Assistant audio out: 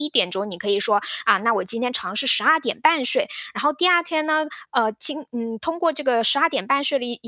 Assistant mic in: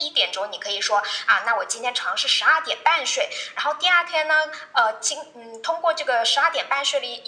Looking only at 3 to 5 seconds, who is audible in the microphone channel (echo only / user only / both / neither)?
echo only